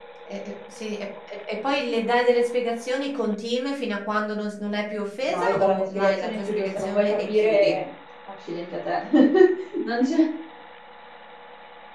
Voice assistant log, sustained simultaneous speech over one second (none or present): present